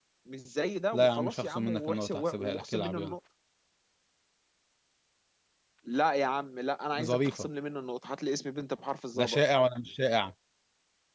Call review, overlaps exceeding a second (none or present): present